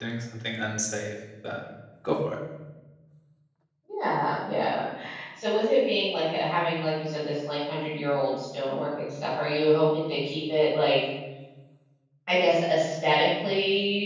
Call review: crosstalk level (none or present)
none